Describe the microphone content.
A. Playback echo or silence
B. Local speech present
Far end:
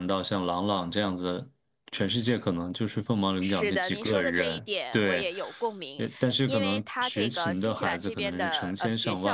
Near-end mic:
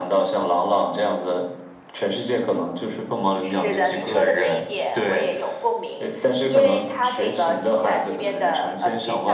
A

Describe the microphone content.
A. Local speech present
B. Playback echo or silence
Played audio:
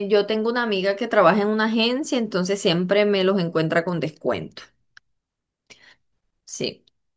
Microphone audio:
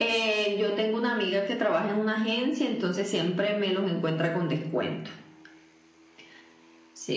B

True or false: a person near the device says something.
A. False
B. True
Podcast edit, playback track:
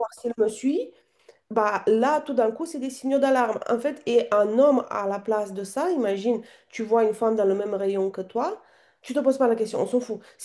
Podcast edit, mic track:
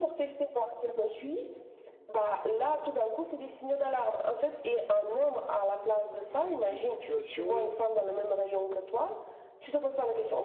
B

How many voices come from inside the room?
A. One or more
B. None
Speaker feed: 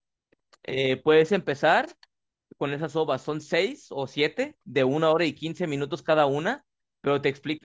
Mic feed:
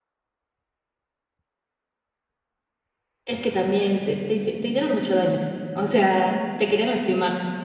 A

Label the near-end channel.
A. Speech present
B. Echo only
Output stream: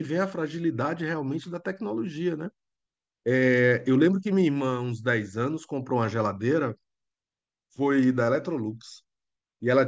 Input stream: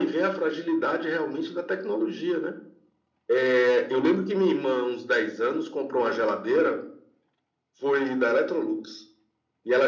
B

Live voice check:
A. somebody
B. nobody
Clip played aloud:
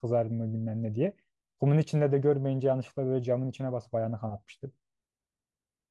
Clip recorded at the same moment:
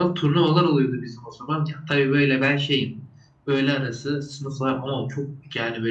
A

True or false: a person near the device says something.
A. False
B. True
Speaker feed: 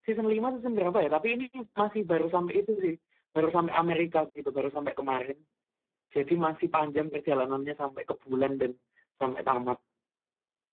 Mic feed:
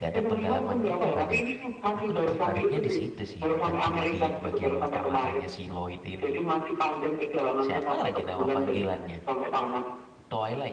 B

